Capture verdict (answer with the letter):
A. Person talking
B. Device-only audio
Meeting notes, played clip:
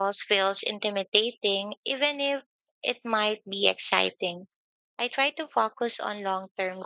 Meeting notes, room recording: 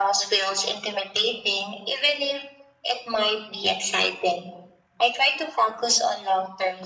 B